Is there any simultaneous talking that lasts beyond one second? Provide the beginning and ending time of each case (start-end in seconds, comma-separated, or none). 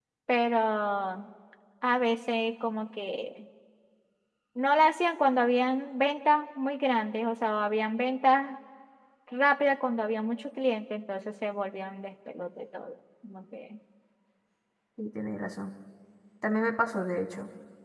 none